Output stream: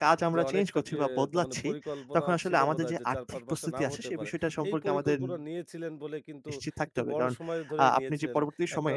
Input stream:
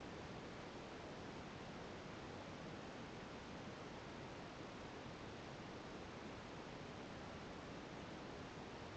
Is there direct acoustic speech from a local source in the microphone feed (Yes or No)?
No